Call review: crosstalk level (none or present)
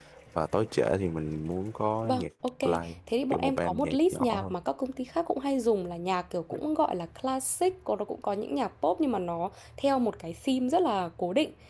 present